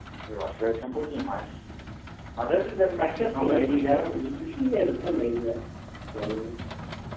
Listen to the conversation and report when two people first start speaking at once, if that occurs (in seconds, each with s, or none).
3.0 s